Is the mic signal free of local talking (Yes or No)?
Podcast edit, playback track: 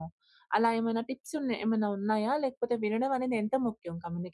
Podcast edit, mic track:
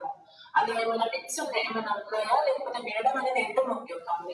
Yes